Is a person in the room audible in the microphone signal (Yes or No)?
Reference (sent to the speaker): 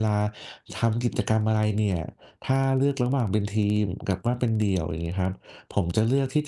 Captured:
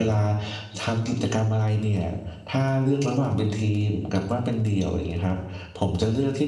No